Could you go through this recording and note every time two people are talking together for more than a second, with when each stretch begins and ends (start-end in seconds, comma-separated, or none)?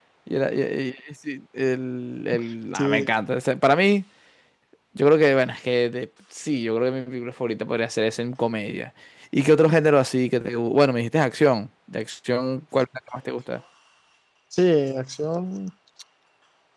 none